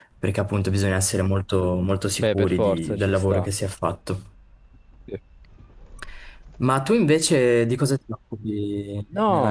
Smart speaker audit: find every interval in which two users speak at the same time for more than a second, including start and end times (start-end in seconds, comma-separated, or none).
2.2-3.4